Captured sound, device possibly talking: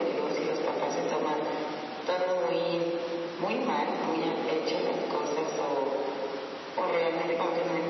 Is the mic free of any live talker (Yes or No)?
Yes